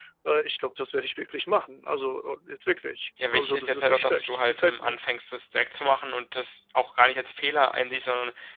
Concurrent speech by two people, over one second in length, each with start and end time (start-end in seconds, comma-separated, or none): 3.3-5.0